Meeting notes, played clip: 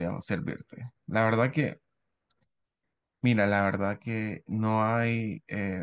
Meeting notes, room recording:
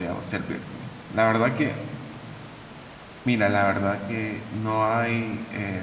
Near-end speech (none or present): none